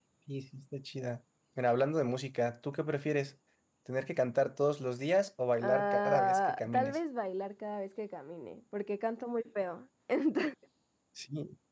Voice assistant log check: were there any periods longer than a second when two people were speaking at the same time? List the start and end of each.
5.6-7.0

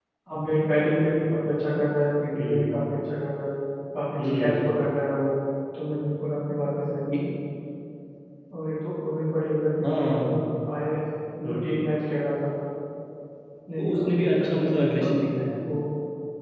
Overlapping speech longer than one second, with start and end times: 13.8-15.1

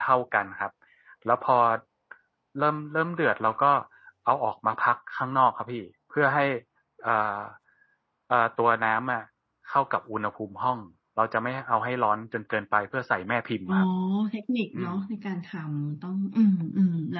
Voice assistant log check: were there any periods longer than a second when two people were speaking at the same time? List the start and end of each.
none

